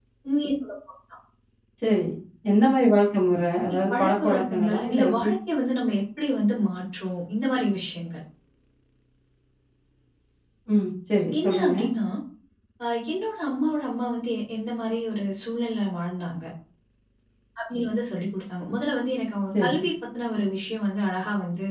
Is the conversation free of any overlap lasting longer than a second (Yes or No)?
No